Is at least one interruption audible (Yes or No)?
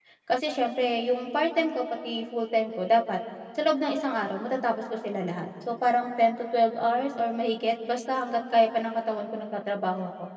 No